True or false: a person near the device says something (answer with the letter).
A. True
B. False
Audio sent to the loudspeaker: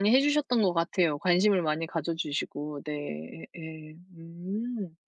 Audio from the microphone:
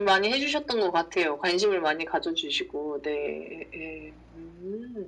B